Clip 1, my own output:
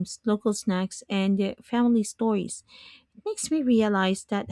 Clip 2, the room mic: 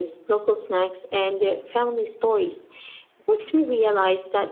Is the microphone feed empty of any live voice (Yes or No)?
Yes